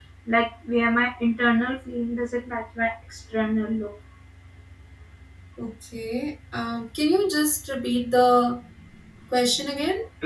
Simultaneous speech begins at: none

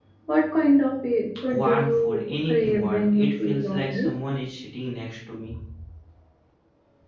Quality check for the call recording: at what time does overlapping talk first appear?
1.3 s

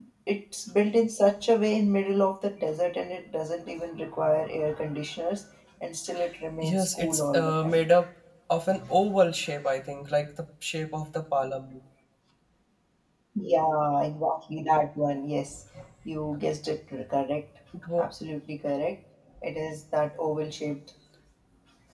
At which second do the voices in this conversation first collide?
6.6 s

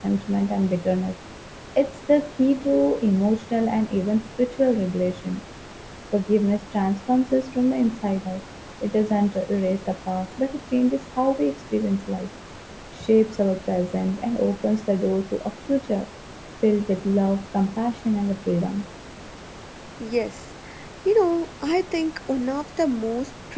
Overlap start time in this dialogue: none

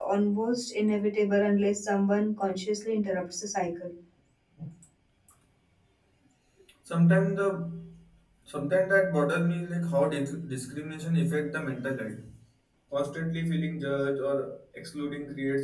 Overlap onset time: none

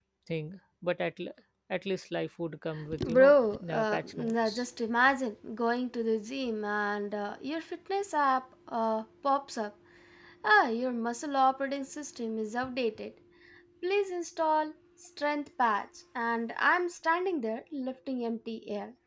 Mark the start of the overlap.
2.9 s

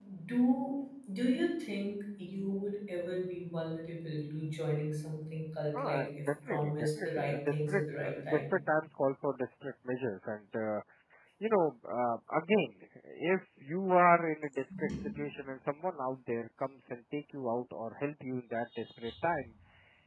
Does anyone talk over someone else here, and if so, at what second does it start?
5.7 s

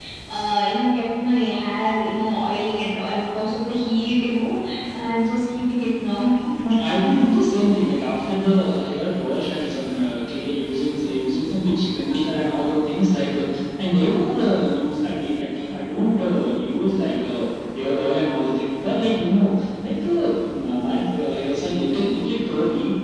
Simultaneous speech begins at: none

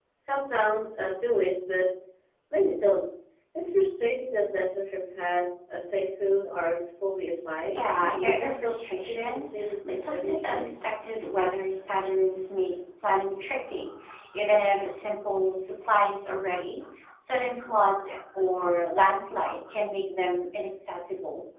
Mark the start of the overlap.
7.7 s

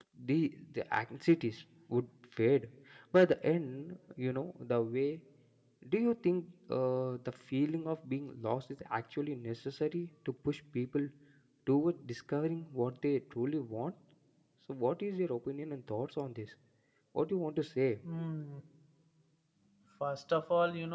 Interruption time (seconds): none

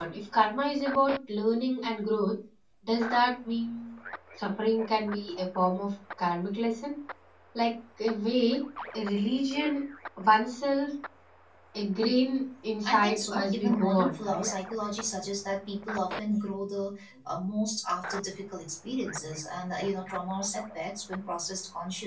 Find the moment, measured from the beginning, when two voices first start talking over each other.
12.8 s

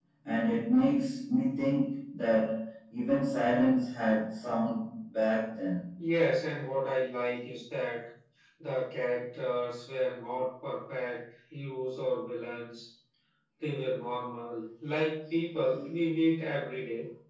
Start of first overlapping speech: none

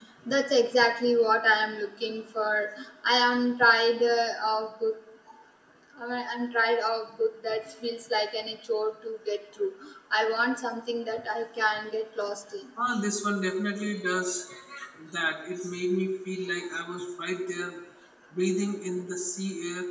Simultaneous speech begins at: none

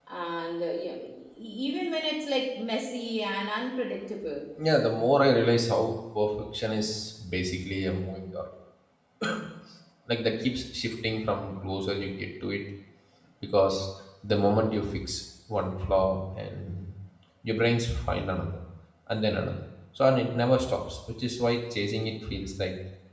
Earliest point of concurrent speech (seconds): none

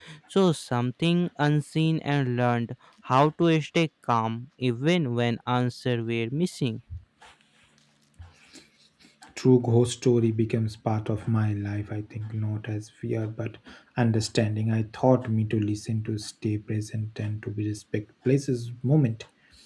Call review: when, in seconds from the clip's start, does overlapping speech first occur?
none

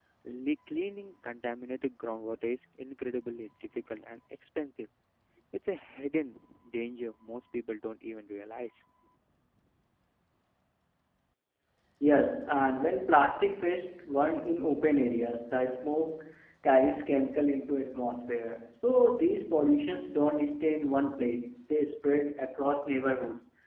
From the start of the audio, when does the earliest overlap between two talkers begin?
none

